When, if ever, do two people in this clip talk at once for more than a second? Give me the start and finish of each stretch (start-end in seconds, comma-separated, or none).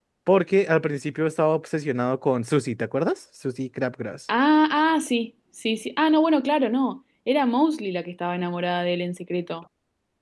none